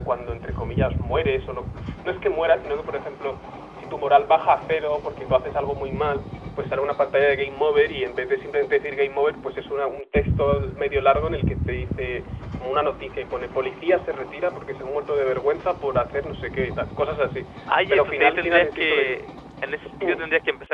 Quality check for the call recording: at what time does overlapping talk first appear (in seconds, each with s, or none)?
17.9 s